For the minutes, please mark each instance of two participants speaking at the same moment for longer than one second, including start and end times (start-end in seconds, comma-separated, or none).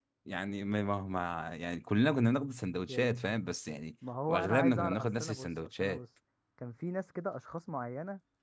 4.3-6.0